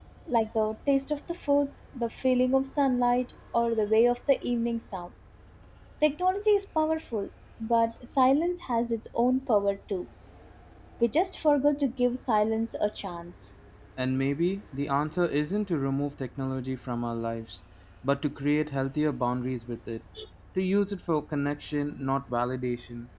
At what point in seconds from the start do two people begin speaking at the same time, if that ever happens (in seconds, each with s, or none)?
none